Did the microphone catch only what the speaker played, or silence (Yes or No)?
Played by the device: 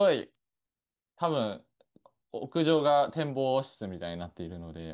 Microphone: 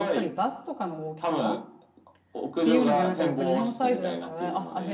No